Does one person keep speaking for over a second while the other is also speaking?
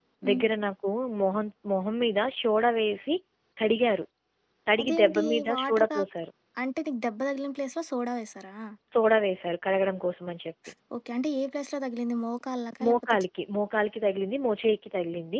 Yes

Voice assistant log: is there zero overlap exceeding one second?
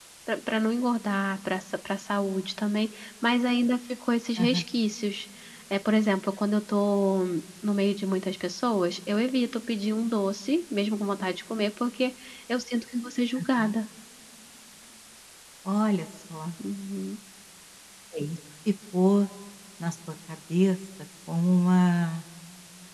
Yes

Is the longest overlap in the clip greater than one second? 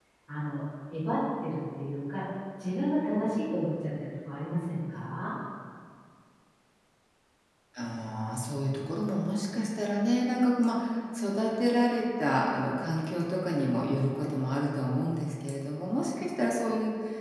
No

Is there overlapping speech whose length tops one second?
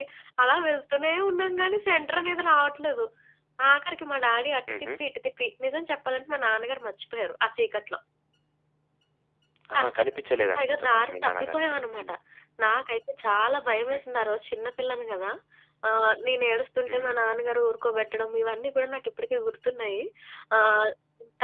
Yes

